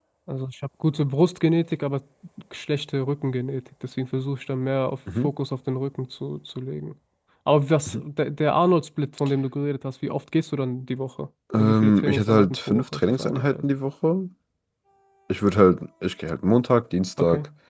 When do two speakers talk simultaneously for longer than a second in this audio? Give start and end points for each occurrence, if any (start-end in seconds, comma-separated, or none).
11.6-13.5